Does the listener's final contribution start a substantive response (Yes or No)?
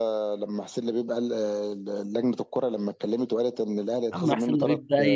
Yes